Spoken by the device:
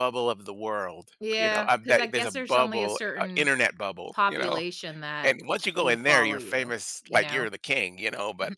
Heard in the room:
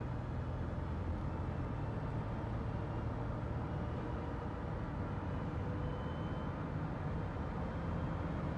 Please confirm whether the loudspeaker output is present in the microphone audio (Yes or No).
No